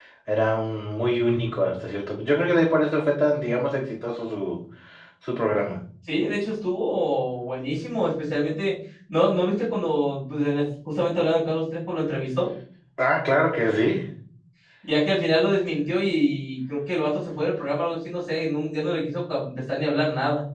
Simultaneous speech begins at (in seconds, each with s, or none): none